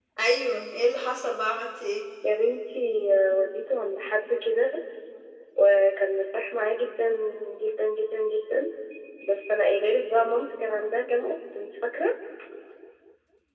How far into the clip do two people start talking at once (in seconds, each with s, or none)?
none